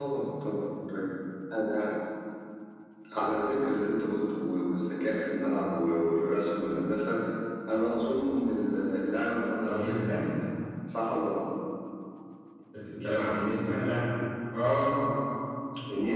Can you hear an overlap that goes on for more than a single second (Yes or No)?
No